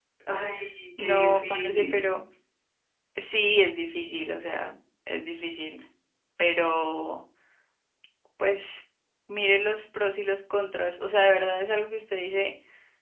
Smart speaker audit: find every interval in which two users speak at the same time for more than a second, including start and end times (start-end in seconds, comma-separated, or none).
1.0-2.2